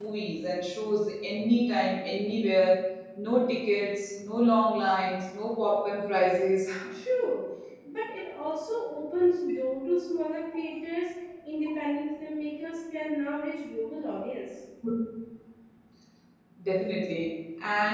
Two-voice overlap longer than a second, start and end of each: none

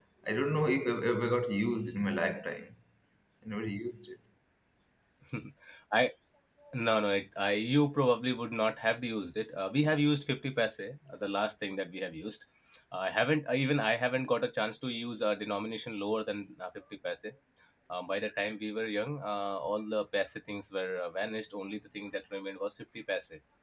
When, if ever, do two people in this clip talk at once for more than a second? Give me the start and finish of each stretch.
none

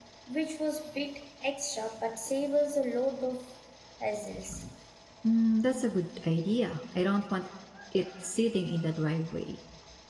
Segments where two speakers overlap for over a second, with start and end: none

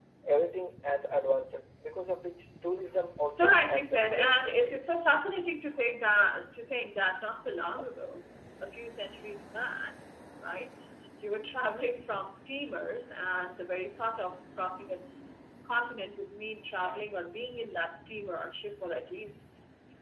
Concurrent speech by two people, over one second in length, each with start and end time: 3.3-4.9

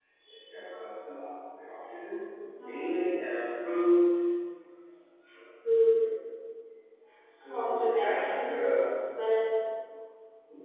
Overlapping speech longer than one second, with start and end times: 7.4-8.8

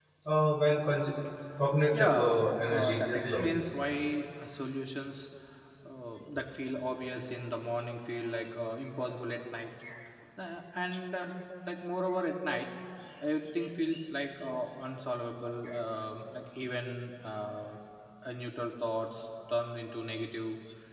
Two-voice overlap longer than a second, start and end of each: 1.9-3.5

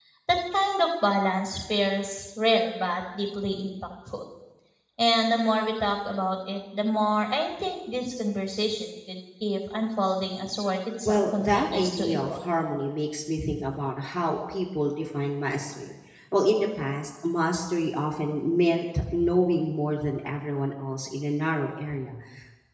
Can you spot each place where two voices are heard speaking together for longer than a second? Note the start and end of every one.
11.1-12.3

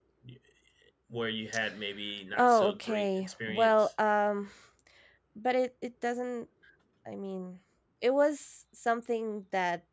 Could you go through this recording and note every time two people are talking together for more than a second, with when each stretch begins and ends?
2.3-3.9

